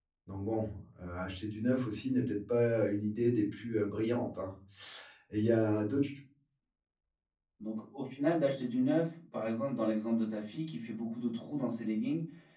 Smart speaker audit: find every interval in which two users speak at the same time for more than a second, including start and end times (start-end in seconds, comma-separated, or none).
none